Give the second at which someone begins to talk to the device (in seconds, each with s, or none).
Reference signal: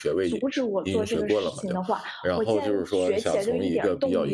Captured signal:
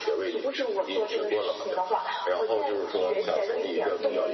2.9 s